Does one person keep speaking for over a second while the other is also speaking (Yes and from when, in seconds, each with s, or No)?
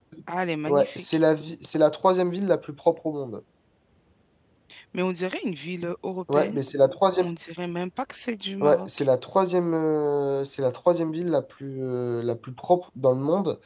No